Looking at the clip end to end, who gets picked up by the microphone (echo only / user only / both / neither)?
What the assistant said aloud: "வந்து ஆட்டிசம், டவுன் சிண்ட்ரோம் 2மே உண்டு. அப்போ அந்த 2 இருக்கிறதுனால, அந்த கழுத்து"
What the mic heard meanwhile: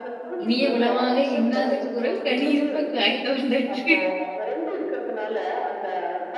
both